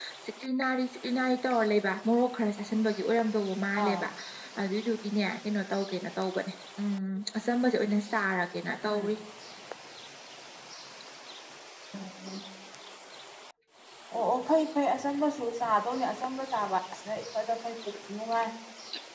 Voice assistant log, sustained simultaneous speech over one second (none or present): none